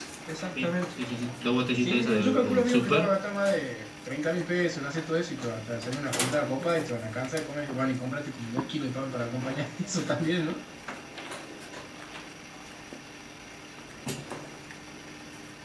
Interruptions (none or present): present